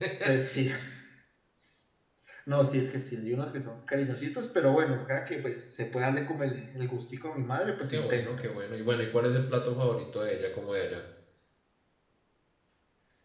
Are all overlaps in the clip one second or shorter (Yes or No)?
Yes